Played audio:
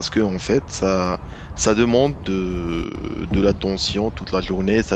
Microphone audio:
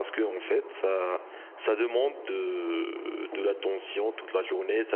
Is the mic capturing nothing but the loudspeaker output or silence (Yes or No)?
Yes